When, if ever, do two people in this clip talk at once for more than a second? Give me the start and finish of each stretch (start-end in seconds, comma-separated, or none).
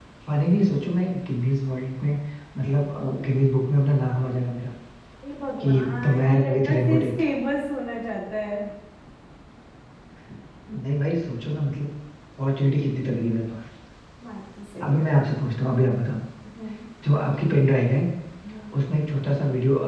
5.6-7.1